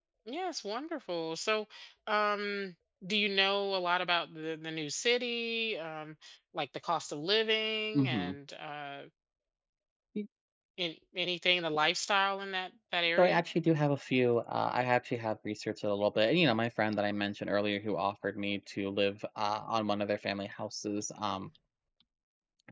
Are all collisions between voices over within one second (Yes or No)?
Yes